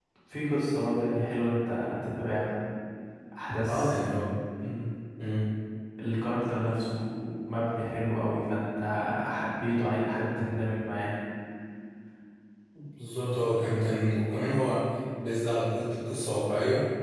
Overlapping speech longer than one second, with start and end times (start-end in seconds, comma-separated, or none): none